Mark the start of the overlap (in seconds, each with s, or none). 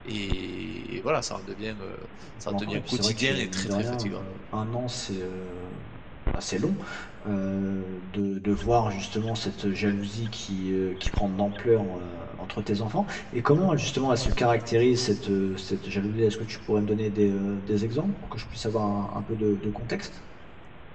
2.4 s